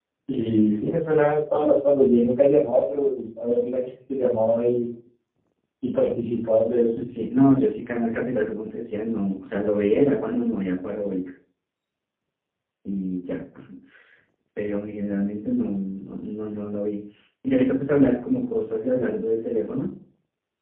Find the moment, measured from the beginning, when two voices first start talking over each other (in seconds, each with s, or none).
none